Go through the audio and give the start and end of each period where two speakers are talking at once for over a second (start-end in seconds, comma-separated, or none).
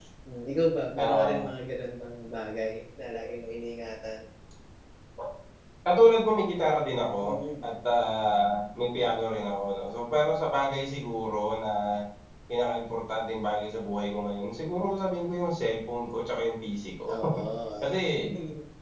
none